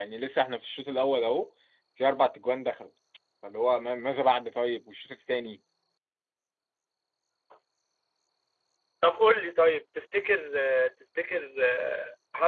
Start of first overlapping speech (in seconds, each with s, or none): none